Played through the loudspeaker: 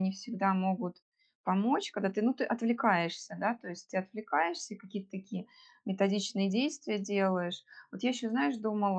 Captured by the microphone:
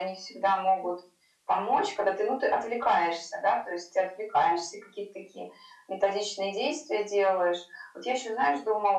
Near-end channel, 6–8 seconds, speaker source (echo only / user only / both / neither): echo only